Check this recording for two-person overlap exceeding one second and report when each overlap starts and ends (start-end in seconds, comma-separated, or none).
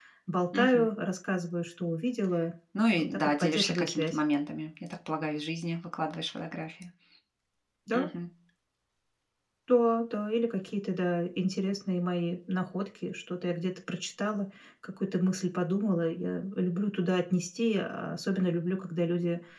3.0-4.2